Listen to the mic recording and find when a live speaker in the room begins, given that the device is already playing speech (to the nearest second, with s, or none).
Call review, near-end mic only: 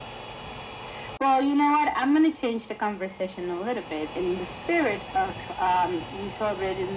none